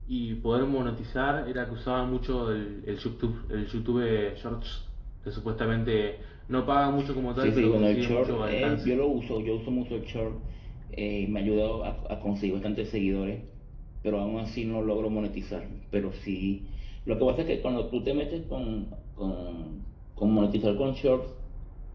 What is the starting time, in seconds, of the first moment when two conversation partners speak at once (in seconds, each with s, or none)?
7.4 s